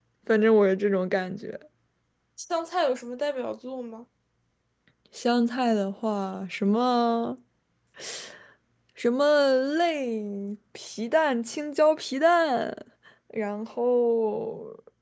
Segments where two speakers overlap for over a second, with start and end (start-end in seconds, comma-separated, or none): none